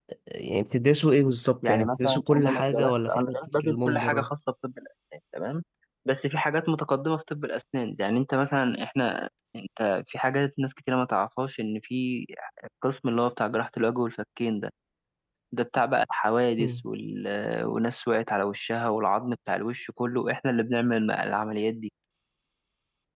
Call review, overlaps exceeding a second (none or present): present